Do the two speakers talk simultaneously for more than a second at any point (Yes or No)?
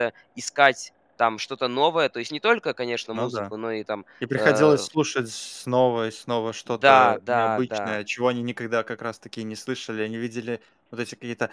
Yes